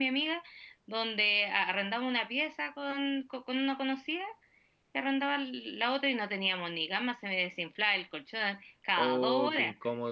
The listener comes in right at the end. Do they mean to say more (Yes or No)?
Yes